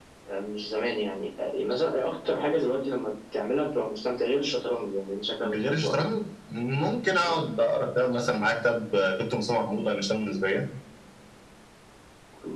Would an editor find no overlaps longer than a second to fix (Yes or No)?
Yes